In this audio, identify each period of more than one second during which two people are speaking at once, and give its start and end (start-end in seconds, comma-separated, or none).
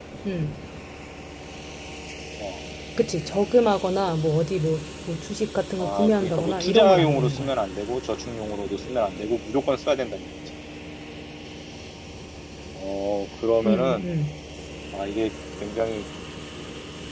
5.8-7.5